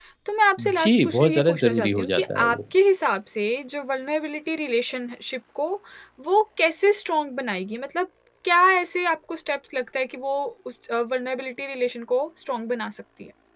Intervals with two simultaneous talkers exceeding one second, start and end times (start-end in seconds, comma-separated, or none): 0.8-2.6